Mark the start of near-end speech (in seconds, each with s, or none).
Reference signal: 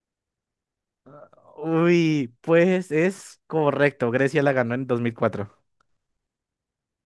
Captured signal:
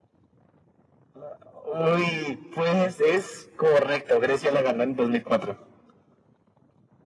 none